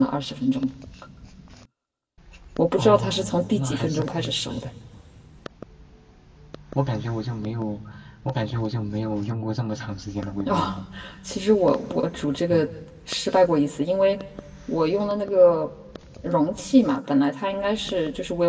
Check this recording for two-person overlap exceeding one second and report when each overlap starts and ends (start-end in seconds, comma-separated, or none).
2.8-4.5